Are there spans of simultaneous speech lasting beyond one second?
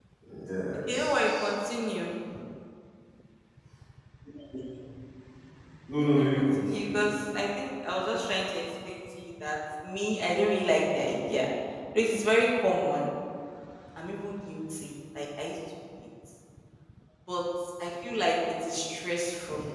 Yes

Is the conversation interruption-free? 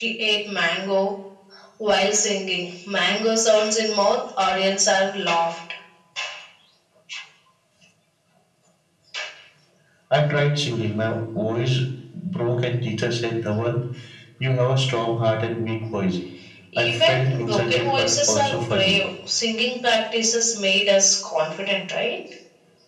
No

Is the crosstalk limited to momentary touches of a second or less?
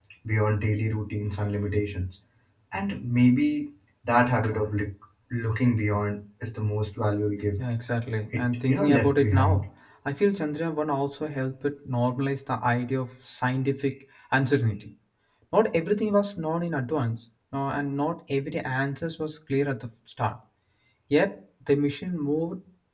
No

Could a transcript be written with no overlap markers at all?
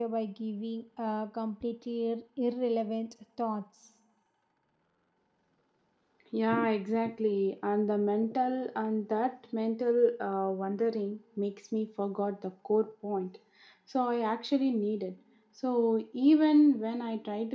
Yes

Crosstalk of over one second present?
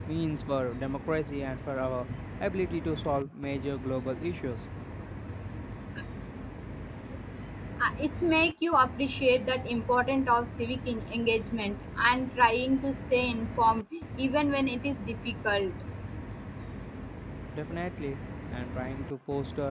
No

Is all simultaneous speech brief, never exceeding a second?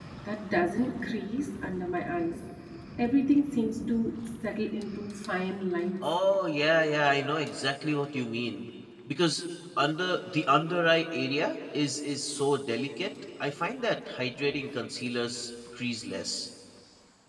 Yes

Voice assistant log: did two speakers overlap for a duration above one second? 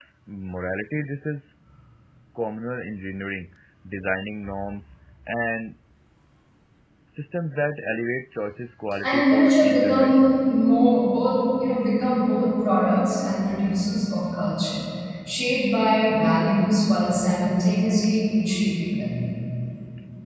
Yes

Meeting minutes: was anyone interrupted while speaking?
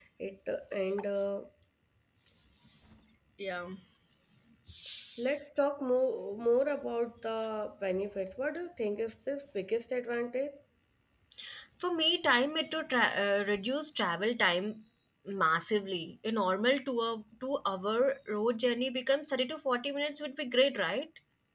No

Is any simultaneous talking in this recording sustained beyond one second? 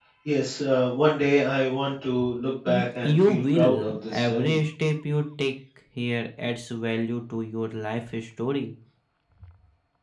Yes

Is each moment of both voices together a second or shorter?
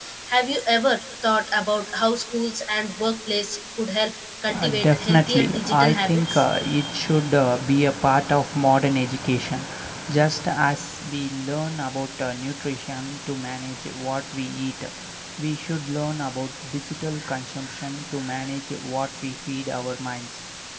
No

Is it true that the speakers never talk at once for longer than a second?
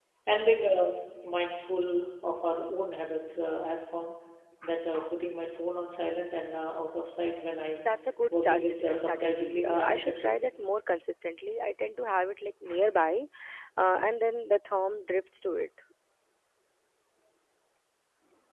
No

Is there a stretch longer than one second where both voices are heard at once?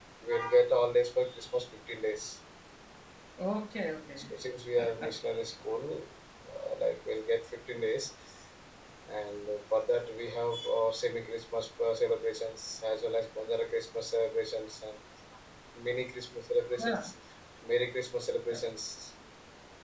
No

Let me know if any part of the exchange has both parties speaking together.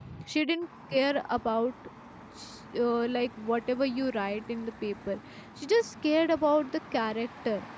No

